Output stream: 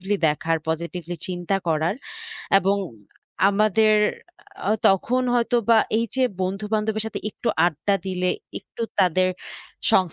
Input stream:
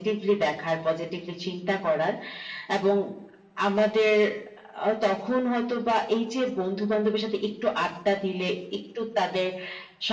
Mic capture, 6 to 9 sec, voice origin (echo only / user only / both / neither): echo only